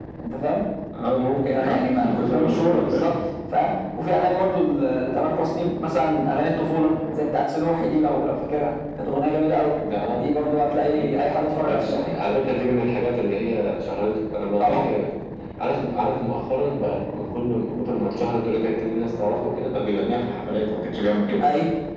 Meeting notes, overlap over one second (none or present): present